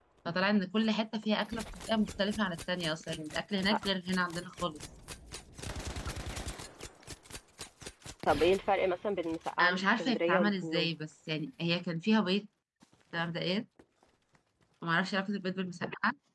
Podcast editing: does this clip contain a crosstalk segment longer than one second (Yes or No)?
Yes